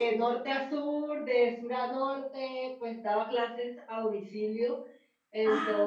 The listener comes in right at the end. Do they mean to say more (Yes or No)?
No